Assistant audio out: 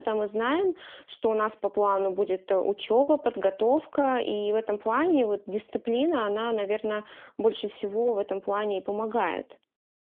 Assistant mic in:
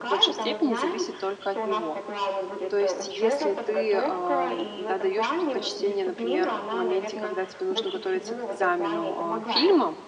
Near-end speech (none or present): present